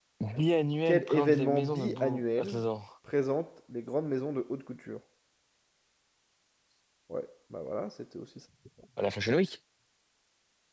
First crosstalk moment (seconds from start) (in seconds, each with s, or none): 0.8 s